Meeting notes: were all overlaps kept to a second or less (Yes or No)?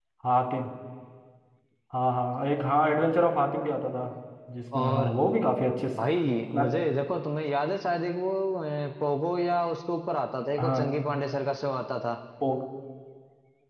Yes